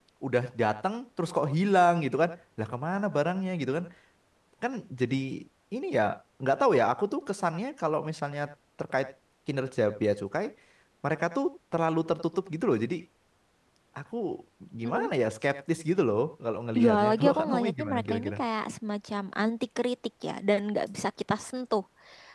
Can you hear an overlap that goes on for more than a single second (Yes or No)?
Yes